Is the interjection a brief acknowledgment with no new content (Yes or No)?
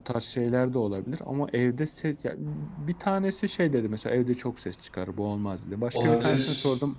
Yes